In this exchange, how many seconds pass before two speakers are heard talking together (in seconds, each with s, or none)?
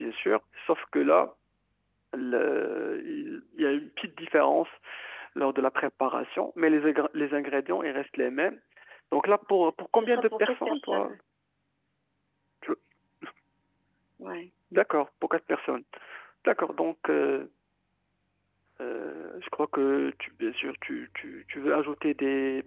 9.9 s